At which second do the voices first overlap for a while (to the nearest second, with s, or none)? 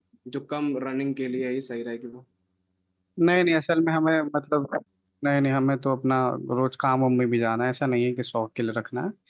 none